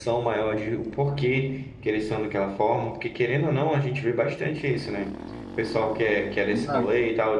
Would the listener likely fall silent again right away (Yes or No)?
Yes